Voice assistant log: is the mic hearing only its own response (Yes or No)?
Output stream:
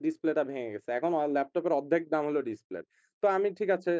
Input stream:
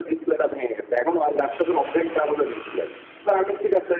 Yes